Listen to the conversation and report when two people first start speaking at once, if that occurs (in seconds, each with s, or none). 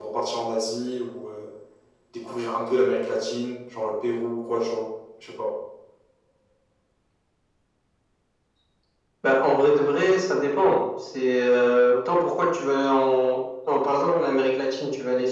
none